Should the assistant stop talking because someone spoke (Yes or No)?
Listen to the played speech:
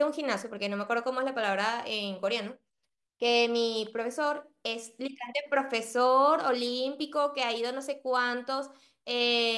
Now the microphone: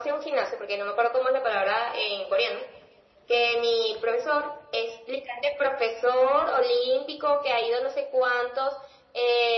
No